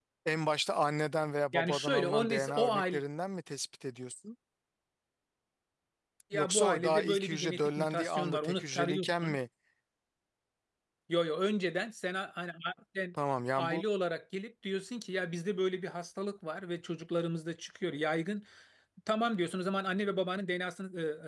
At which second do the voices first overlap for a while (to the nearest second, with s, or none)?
2 s